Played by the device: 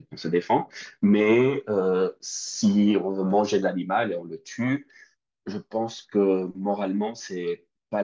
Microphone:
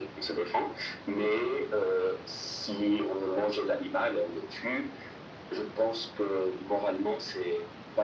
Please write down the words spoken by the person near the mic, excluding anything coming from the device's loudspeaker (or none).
none